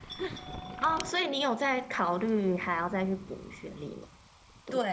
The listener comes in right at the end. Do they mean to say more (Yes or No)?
Yes